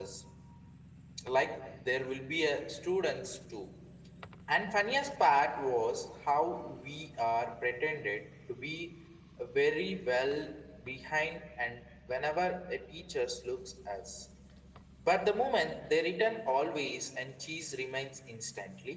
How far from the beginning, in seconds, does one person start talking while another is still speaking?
none

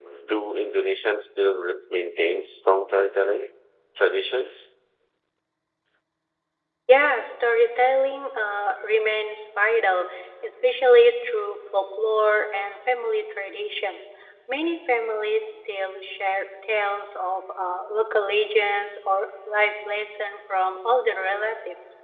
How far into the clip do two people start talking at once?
none

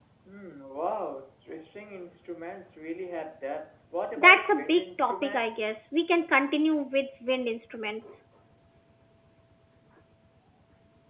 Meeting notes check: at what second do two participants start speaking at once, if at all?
4.2 s

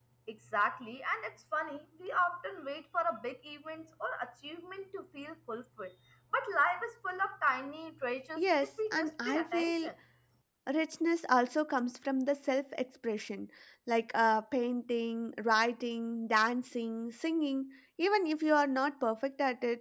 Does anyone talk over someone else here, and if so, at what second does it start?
8.4 s

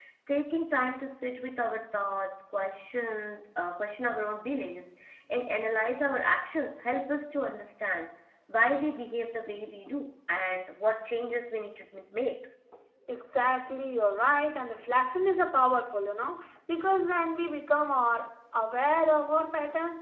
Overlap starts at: none

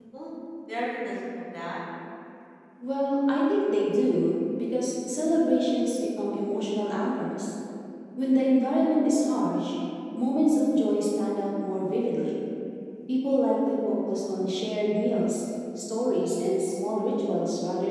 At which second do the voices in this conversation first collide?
none

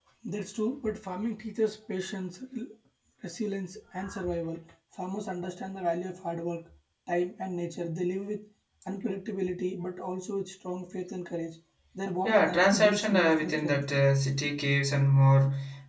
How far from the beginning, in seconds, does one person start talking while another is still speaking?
12.2 s

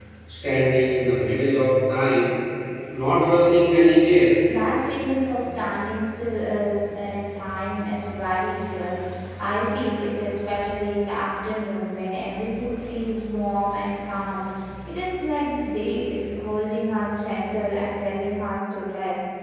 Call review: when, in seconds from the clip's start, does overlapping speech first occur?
none

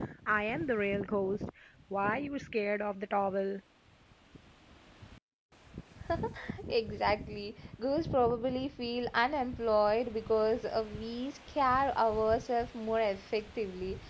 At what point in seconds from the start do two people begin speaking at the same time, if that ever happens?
none

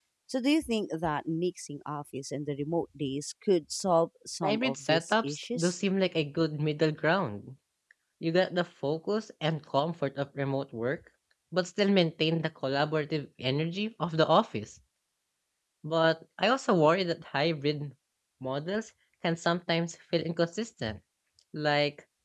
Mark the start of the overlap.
4.4 s

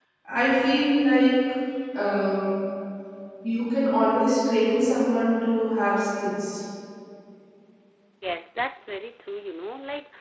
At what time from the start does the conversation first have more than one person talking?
none

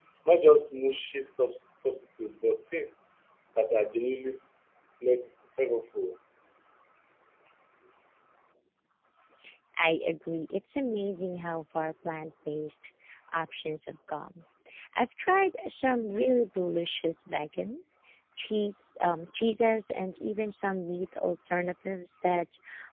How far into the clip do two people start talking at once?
none

